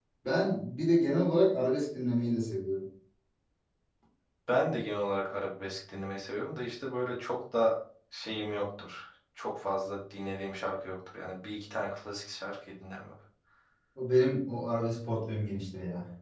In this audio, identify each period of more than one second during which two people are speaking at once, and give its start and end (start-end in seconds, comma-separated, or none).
none